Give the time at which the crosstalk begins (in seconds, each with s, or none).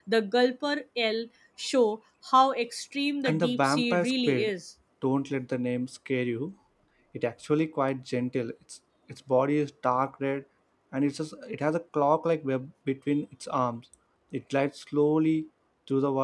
3.2 s